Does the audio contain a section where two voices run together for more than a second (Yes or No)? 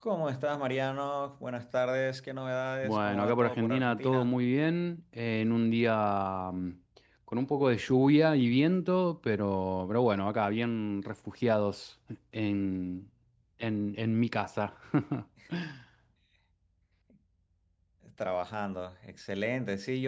Yes